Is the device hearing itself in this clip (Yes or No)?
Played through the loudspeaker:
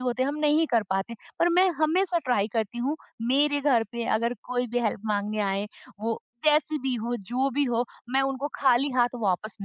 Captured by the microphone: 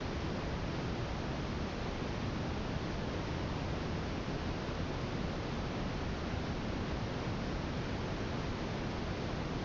No